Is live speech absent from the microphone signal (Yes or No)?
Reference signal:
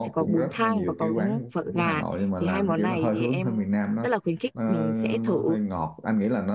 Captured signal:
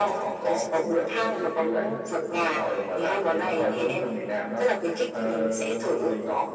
Yes